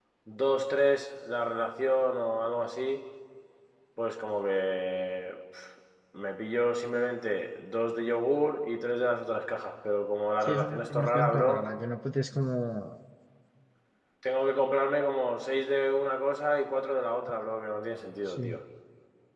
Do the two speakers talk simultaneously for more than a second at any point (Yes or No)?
Yes